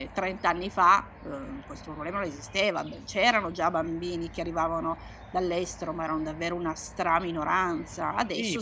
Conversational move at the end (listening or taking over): taking over